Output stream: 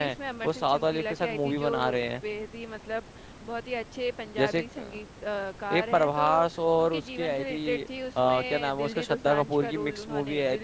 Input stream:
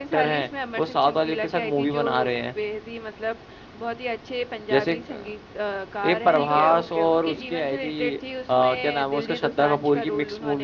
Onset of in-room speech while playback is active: 6 s

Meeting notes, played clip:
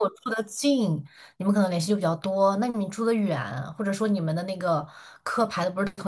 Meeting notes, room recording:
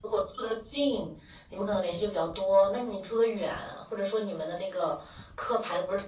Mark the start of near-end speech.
none

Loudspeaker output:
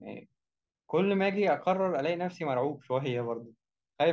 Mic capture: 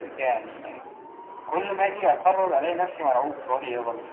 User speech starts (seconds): none

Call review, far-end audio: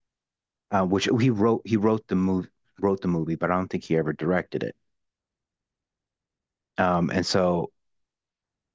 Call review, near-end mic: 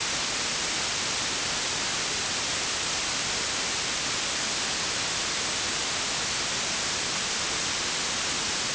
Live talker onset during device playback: none

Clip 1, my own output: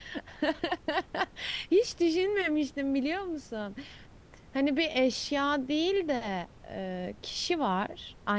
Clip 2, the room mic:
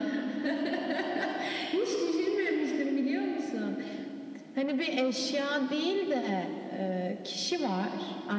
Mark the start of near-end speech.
none

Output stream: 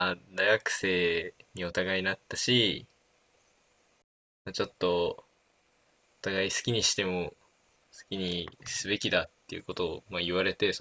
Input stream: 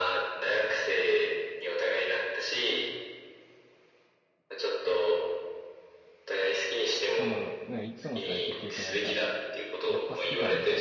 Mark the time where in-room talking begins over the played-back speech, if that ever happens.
7 s

